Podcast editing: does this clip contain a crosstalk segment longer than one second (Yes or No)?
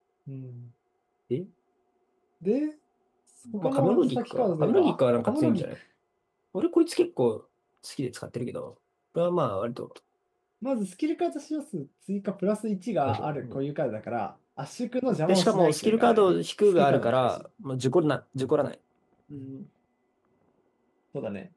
Yes